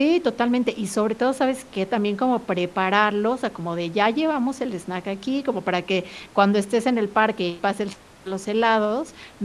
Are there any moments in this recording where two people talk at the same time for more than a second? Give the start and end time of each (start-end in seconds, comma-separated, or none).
none